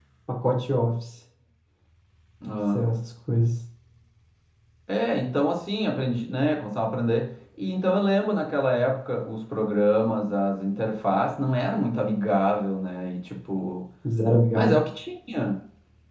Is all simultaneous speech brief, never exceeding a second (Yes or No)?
Yes